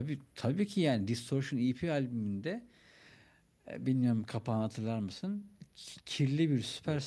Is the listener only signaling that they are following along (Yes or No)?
Yes